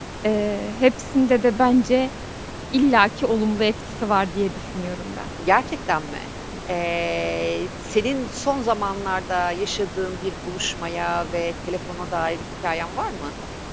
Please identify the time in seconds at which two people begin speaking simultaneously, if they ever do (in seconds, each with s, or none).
none